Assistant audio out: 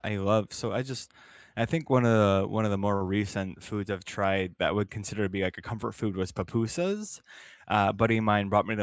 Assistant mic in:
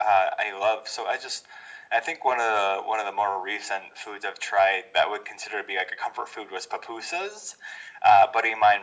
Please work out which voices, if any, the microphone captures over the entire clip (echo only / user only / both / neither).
echo only